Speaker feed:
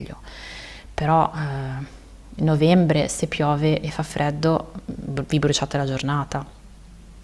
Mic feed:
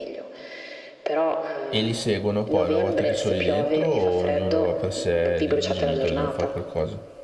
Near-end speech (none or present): present